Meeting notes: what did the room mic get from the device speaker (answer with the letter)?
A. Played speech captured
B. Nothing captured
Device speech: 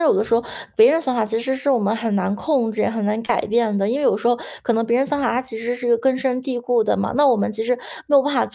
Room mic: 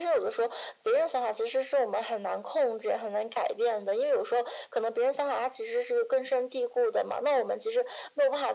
A